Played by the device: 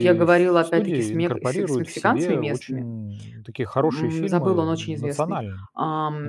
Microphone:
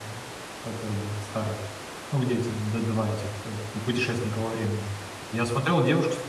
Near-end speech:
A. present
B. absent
A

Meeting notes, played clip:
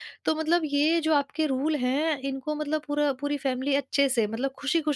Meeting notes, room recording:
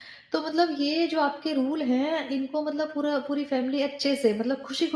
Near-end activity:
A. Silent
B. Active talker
A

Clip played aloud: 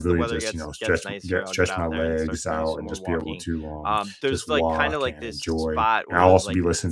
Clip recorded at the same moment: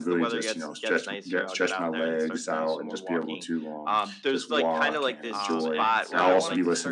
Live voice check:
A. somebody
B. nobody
A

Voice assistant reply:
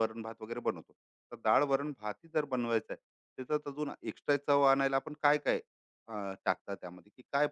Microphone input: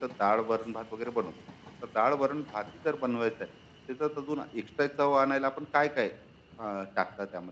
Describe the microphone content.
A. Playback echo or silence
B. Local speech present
A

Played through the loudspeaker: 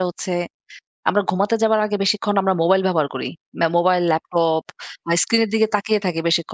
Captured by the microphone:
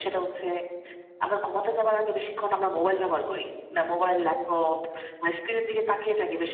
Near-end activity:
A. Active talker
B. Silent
B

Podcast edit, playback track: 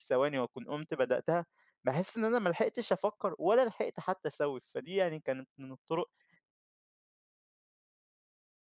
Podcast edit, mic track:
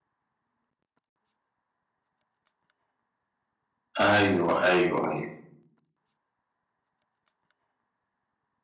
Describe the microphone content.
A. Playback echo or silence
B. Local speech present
B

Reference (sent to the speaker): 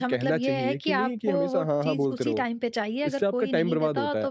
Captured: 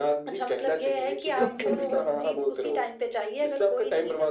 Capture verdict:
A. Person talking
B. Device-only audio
A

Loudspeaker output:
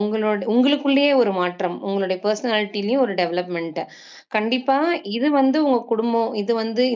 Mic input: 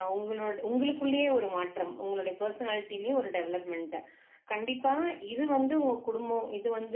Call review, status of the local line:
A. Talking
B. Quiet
B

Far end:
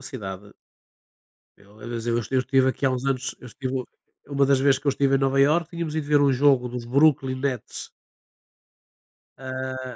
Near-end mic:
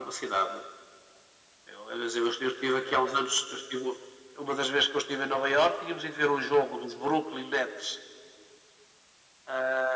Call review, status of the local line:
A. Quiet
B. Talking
A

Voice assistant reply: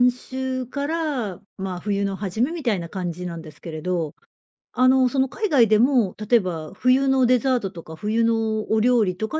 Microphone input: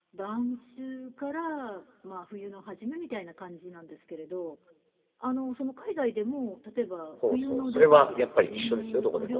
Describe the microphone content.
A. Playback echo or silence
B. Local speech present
B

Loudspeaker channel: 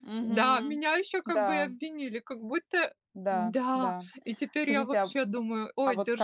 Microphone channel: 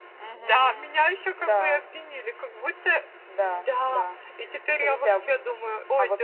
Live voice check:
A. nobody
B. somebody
A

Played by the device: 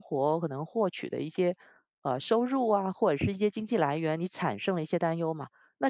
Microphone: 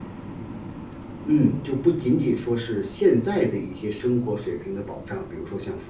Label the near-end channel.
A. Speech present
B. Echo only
A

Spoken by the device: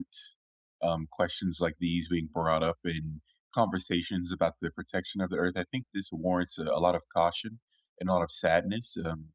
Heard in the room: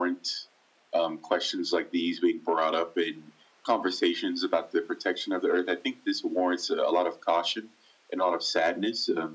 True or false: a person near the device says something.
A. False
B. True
A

